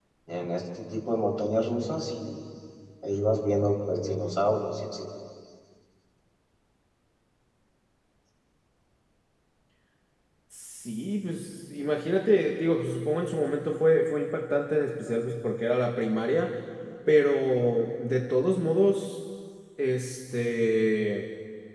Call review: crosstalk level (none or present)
none